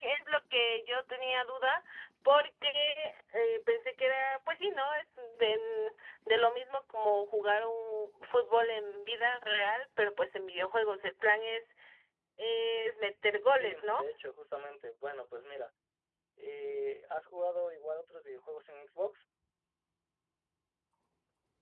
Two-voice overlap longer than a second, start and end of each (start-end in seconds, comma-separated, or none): none